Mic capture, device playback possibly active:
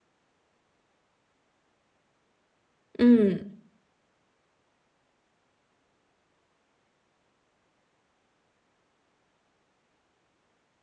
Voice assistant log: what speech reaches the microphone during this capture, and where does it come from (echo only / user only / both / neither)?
user only